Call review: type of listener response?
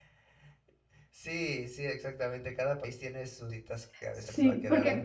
taking over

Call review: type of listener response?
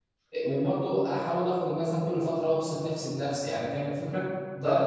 taking over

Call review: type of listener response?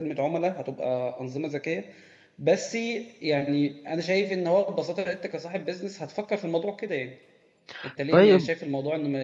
listening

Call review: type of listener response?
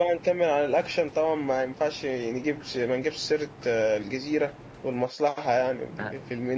taking over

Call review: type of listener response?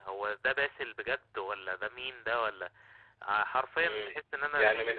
taking over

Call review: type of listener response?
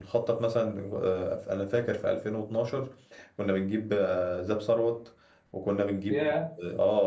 listening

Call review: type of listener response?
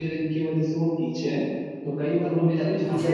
listening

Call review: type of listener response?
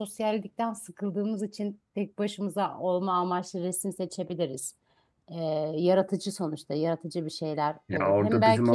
taking over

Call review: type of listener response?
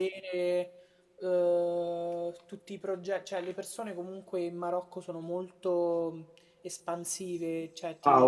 taking over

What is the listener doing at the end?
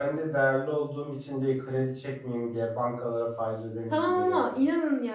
taking over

